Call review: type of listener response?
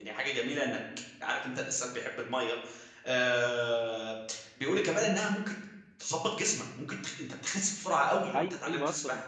taking over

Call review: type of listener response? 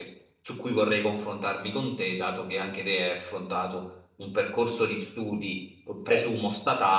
listening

